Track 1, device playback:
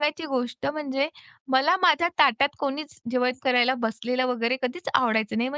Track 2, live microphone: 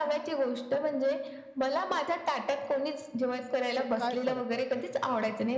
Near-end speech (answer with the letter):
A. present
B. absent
A